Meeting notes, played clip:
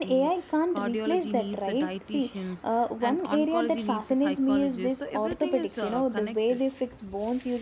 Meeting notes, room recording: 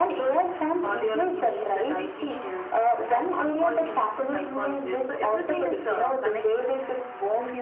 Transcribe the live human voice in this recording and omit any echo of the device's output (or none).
none